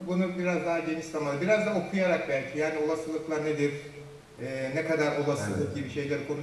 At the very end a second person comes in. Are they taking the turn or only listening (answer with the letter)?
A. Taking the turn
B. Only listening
B